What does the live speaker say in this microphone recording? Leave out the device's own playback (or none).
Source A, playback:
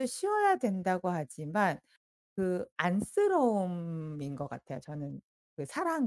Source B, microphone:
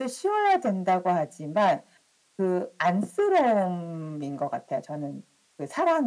none